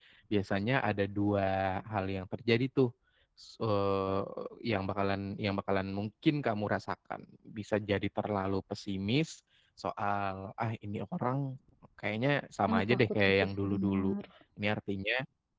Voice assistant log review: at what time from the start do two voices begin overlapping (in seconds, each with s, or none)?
12.7 s